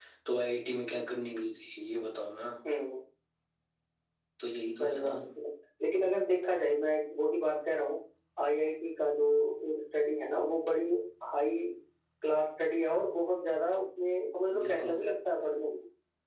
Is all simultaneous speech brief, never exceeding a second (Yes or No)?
Yes